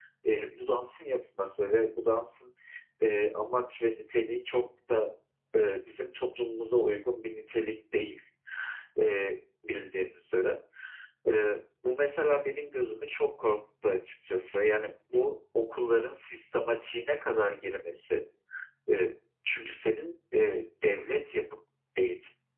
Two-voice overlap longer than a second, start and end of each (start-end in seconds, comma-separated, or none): none